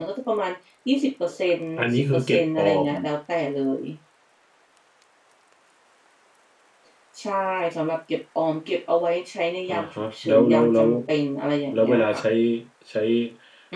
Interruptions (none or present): present